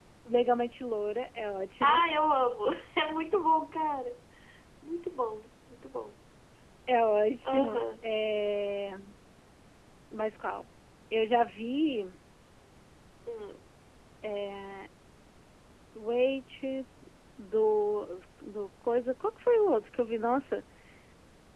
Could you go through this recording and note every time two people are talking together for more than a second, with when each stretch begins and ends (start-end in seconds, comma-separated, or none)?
none